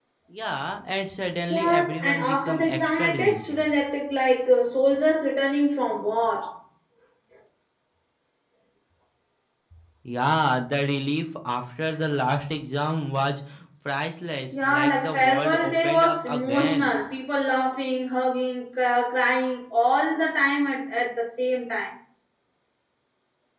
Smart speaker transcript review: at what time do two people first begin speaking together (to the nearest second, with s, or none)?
1 s